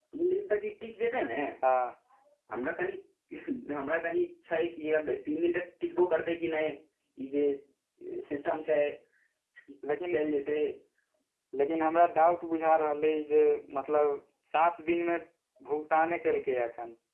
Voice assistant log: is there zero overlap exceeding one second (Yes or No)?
Yes